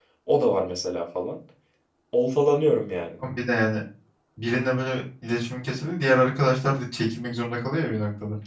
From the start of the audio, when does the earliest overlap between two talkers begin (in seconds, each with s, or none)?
none